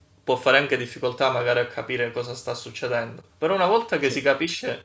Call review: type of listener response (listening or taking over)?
listening